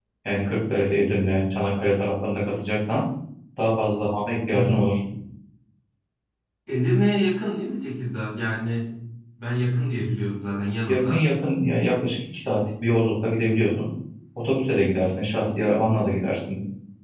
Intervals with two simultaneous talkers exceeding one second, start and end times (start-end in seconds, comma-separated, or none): none